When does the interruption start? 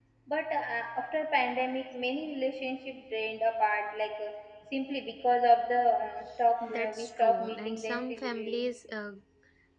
6.7 s

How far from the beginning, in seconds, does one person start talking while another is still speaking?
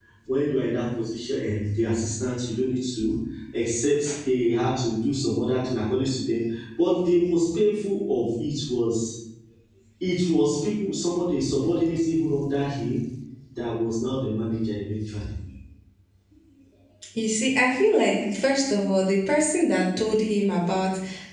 none

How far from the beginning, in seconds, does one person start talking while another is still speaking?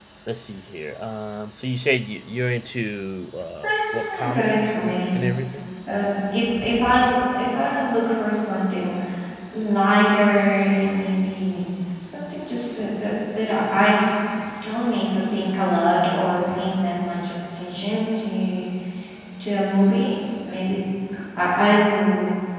3.5 s

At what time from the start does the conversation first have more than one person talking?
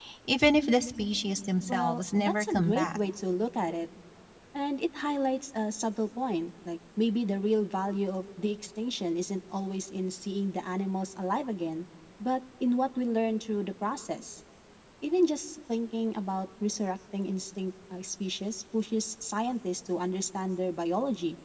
1.7 s

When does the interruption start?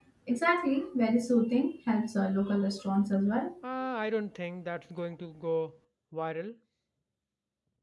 none

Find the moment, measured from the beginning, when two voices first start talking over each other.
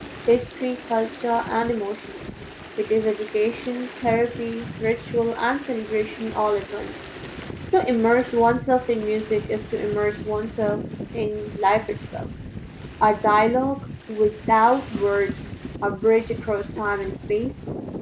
none

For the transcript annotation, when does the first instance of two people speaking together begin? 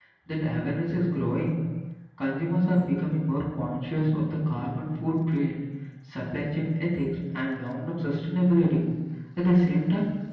none

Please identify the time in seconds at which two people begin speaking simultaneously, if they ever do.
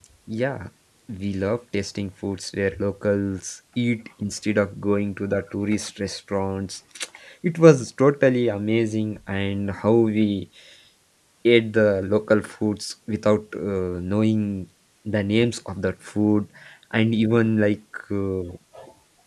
none

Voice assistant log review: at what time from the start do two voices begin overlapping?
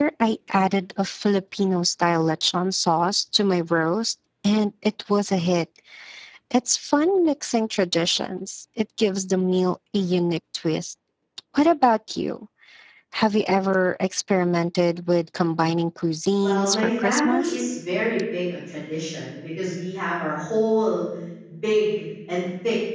16.4 s

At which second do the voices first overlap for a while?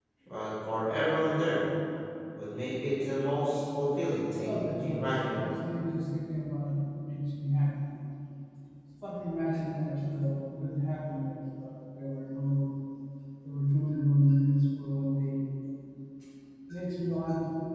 4.3 s

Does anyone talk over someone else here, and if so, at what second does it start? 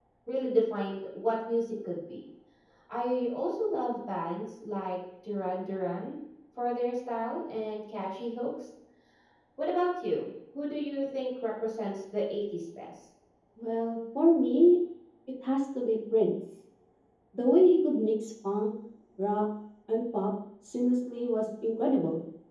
none

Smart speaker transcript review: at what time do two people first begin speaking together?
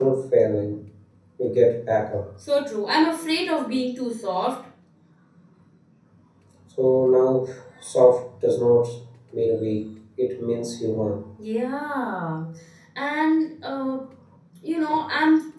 none

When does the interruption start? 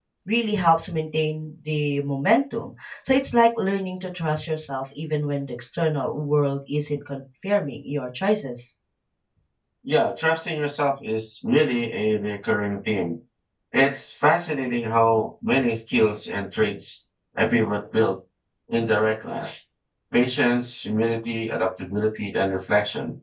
none

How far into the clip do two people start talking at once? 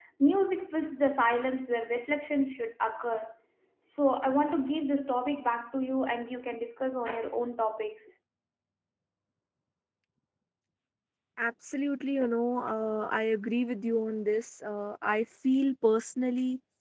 none

